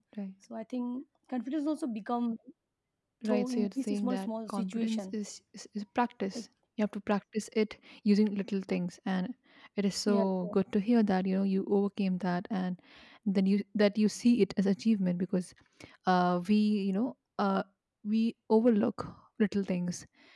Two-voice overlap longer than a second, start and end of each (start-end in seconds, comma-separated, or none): 3.2-5.1